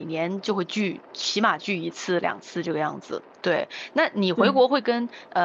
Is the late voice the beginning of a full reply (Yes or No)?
No